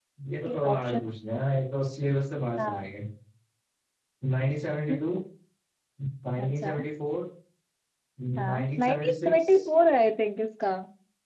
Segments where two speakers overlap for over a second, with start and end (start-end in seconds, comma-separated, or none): 8.4-9.7